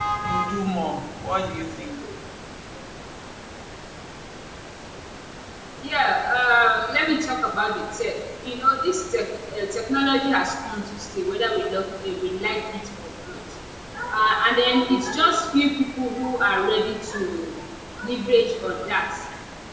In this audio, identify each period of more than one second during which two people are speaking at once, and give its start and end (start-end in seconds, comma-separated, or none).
none